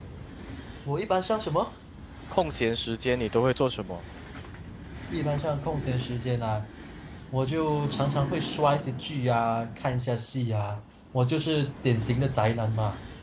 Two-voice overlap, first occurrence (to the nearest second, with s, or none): none